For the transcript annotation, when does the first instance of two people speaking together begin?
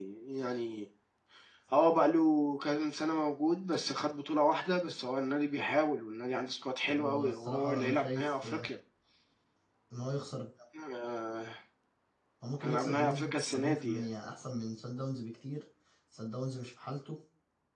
7.0 s

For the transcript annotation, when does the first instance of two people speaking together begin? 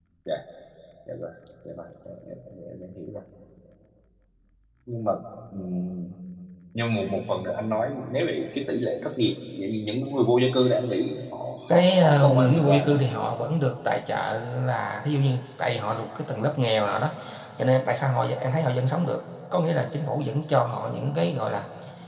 11.7 s

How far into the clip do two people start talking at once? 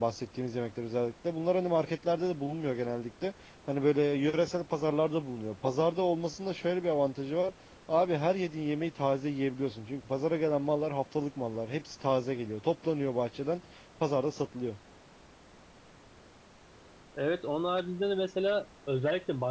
none

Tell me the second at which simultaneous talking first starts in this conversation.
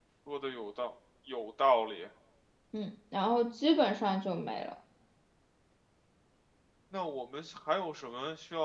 none

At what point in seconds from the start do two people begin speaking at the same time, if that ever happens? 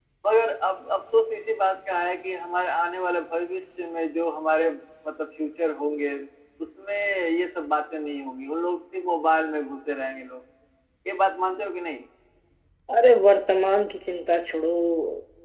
none

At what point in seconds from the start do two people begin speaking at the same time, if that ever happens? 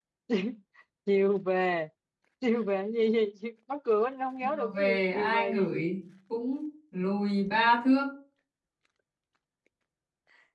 4.4 s

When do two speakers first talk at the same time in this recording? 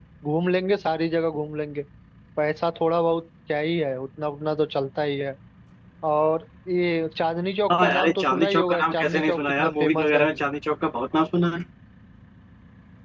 7.7 s

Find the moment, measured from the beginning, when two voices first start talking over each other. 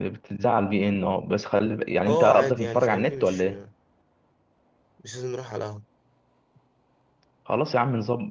2.1 s

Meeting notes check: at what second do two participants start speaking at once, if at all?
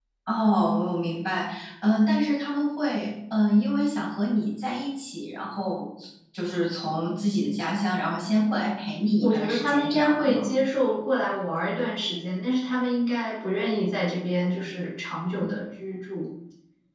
9.2 s

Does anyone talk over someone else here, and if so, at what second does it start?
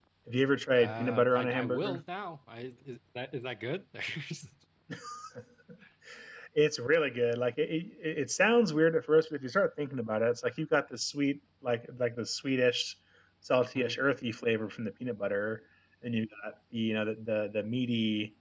0.8 s

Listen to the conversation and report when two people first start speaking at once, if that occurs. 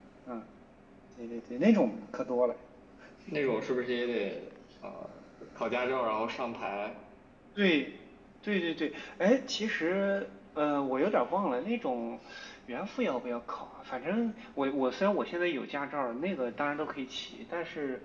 none

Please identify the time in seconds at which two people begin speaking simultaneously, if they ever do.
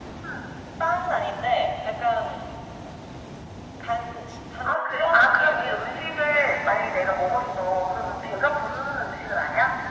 4.7 s

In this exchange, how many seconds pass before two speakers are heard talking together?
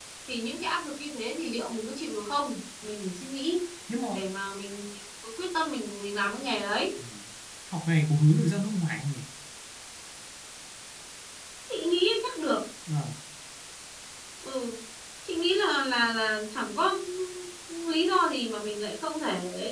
none

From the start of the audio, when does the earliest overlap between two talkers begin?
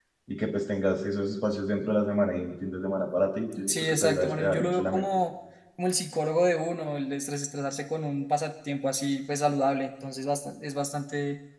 3.5 s

